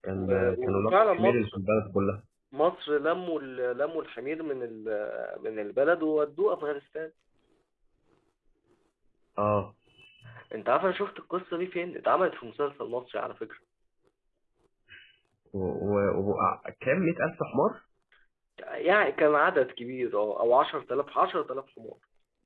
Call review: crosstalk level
present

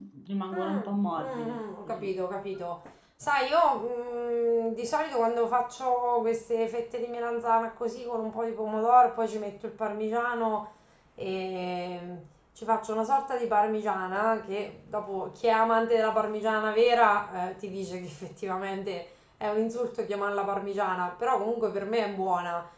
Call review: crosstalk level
present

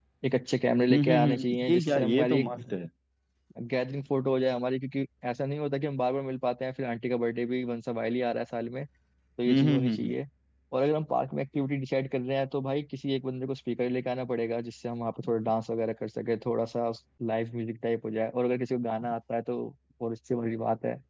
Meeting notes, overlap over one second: present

